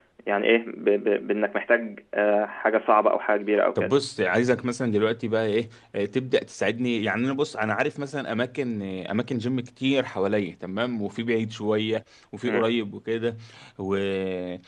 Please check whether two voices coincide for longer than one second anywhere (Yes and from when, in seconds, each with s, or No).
No